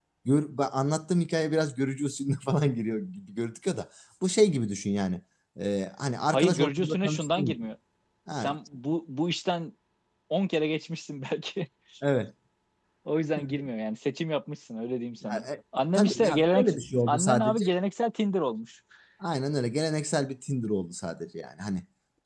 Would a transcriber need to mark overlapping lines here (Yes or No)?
Yes